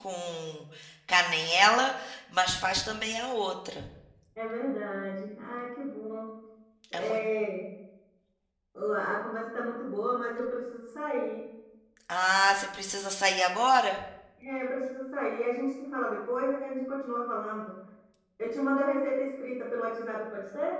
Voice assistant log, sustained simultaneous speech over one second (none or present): none